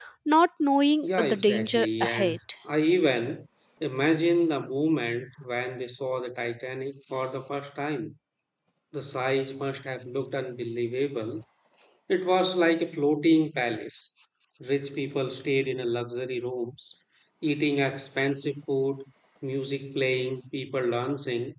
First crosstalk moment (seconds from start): 1.0 s

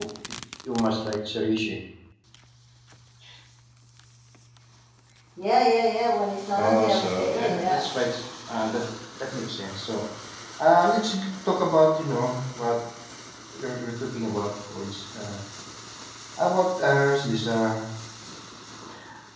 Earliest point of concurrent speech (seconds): 6.5 s

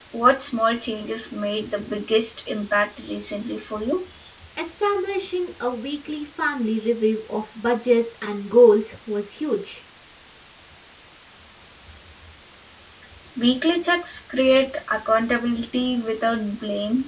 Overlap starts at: none

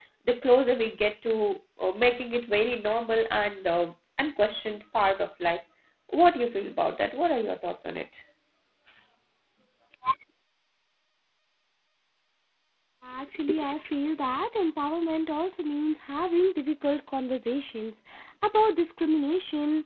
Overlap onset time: none

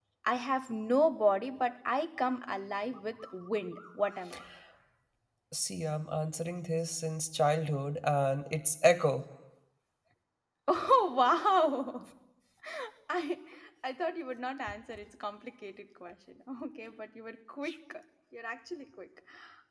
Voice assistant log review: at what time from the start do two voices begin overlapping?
none

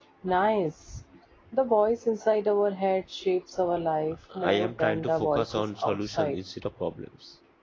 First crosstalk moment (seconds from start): 4.3 s

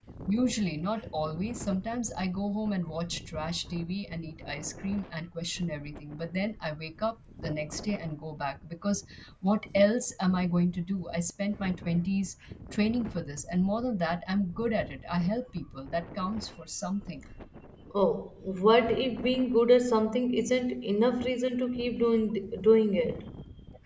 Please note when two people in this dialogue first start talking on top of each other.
none

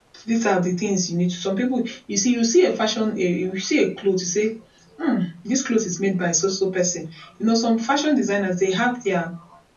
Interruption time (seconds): none

